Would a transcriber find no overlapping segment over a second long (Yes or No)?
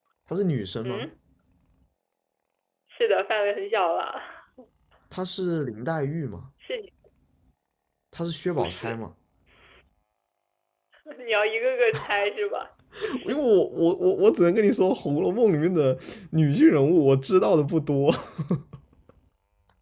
Yes